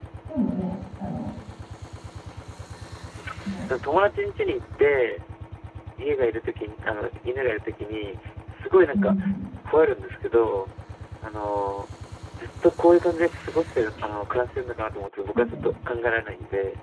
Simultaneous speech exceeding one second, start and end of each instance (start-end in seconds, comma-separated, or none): none